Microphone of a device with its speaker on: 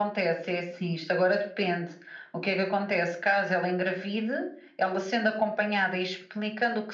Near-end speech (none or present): none